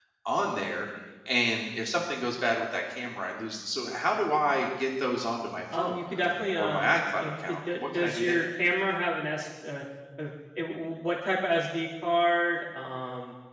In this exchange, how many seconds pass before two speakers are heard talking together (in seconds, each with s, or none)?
5.7 s